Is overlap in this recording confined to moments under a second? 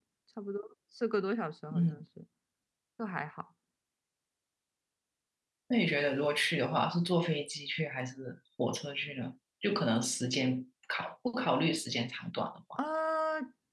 Yes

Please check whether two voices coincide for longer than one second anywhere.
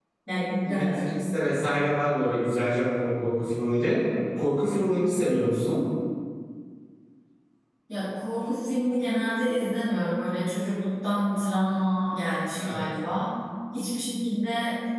No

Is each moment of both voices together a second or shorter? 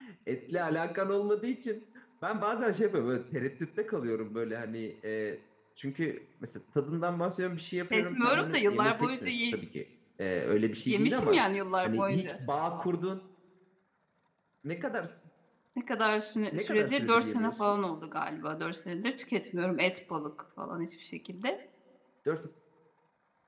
No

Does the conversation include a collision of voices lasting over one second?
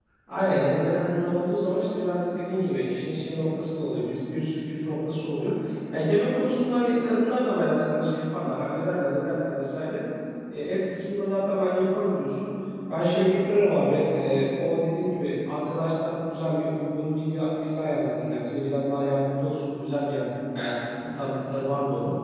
No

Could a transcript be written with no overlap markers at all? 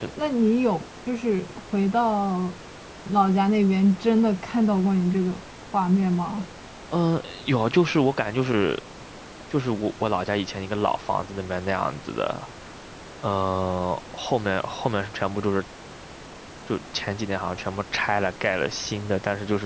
Yes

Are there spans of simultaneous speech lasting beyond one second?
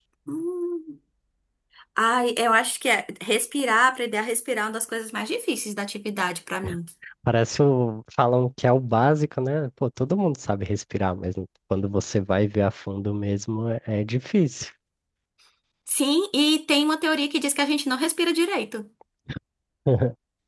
No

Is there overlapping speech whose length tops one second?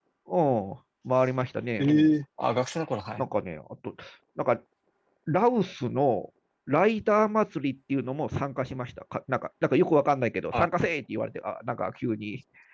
No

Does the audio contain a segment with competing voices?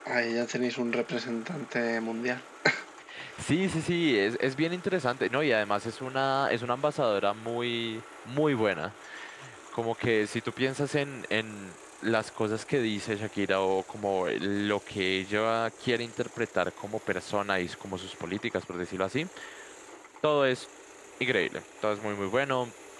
No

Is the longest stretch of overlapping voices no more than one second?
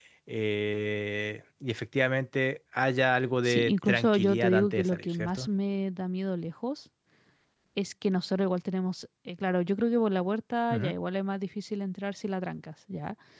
No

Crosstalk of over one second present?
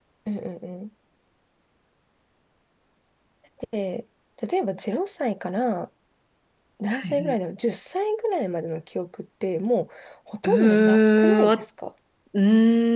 Yes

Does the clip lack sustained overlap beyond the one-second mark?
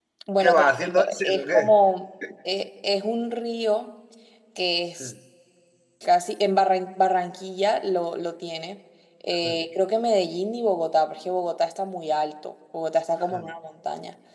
No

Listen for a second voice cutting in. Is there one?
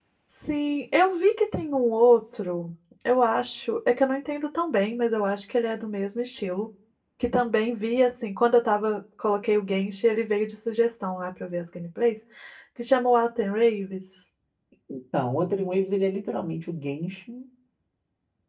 No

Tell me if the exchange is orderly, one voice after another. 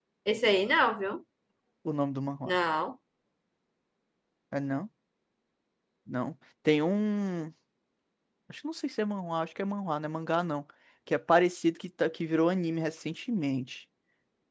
Yes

